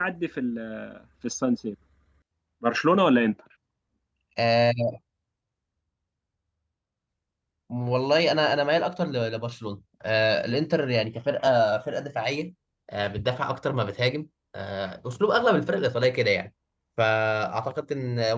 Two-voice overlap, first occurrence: none

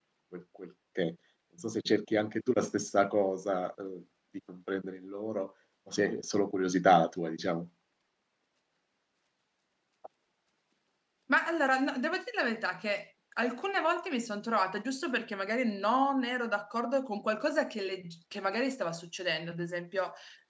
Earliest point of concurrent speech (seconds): none

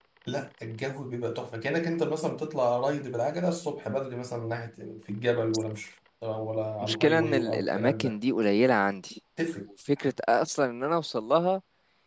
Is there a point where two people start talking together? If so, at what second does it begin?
6.8 s

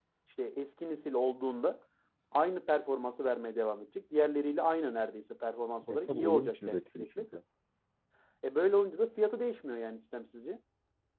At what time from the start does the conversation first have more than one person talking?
5.8 s

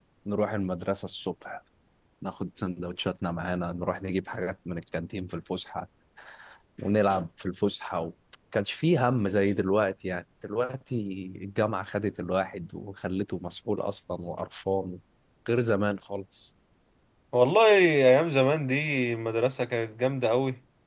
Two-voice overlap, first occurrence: none

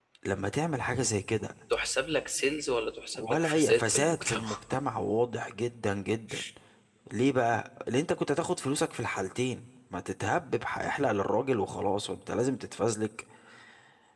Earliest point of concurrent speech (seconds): 3.1 s

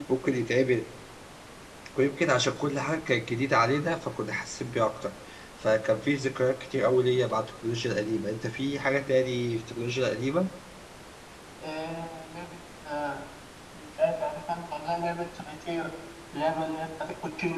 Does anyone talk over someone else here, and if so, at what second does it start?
none

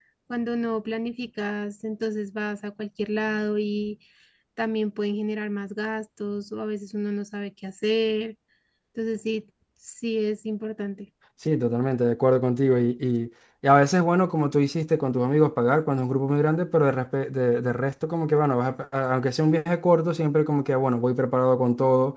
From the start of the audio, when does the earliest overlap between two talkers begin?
none

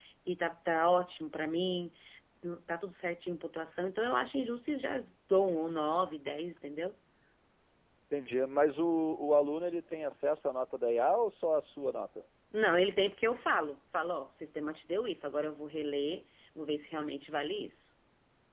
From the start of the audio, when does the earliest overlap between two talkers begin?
none

